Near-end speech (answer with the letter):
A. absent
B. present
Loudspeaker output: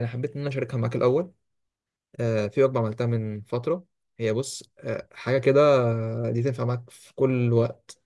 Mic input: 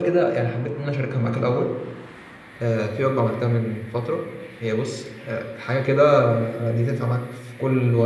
A